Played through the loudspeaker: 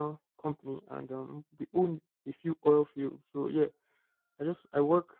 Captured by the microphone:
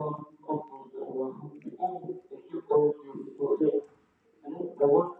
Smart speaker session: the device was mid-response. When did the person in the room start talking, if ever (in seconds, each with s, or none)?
none